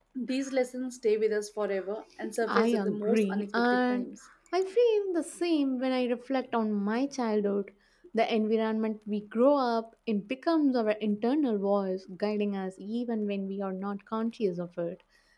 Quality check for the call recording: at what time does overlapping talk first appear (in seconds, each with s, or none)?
2.4 s